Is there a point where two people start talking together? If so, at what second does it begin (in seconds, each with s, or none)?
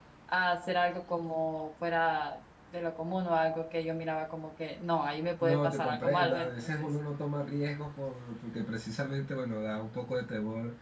5.4 s